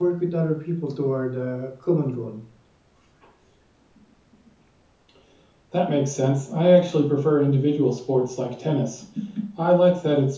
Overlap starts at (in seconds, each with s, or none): none